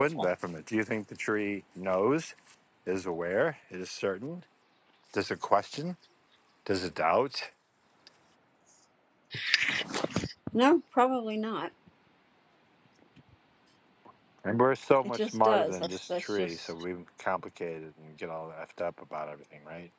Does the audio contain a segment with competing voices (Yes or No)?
Yes